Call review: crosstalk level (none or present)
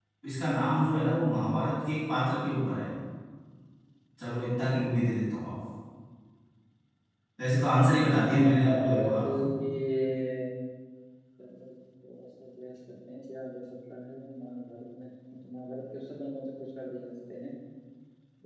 present